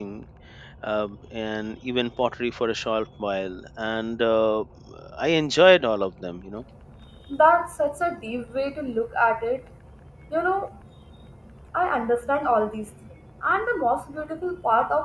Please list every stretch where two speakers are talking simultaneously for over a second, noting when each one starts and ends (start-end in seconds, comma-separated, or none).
none